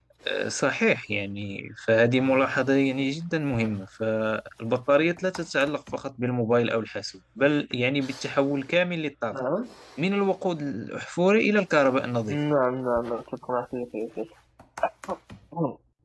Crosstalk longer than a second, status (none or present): none